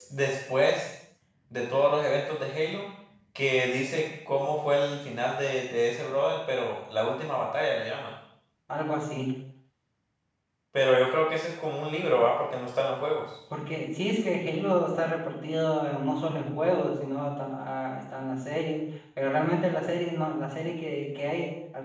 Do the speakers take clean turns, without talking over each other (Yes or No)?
Yes